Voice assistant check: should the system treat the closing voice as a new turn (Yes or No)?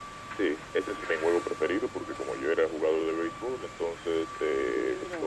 No